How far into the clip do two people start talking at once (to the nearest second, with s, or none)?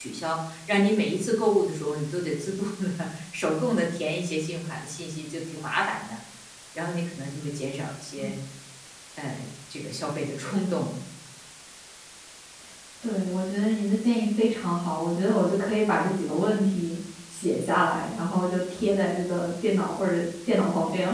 none